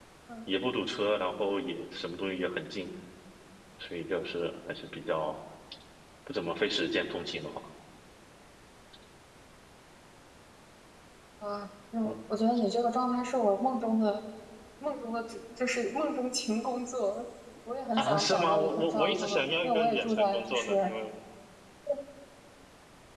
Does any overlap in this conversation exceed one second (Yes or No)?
Yes